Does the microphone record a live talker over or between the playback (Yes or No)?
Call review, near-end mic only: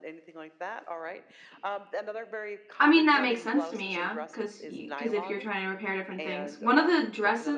Yes